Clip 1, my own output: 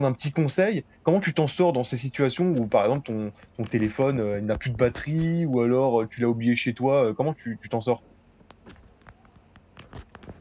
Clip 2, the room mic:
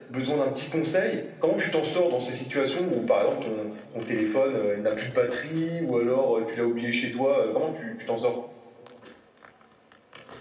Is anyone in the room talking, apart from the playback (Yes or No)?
No